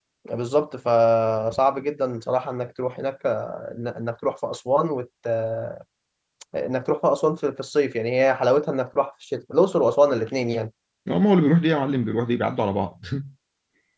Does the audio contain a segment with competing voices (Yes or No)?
No